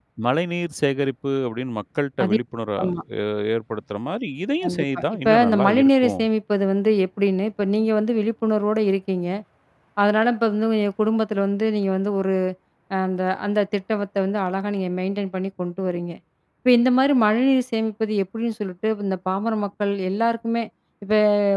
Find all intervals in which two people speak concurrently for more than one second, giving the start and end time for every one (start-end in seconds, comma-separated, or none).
4.6-6.1